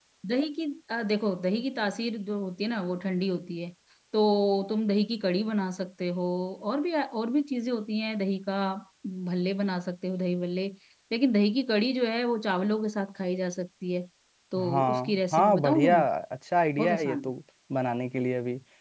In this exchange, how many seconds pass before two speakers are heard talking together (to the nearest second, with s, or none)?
15 s